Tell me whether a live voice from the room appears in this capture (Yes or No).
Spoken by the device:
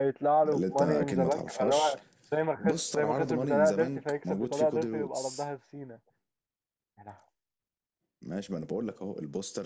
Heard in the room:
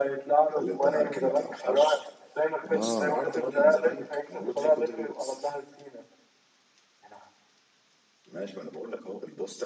Yes